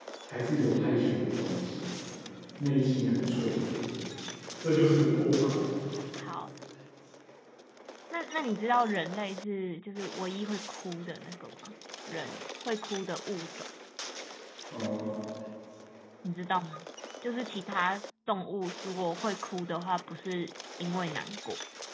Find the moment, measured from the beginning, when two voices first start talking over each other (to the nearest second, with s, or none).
none